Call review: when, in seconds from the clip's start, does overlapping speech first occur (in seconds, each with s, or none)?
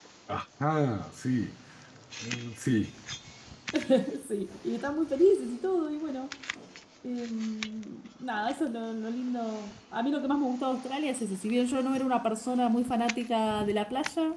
none